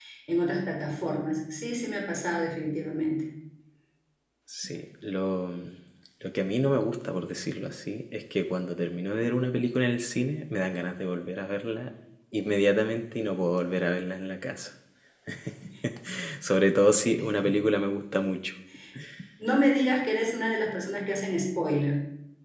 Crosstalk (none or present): none